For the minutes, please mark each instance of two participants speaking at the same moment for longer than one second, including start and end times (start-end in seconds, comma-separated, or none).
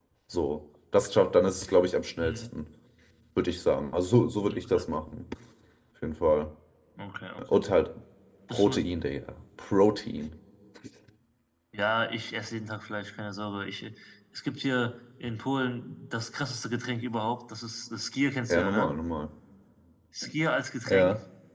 none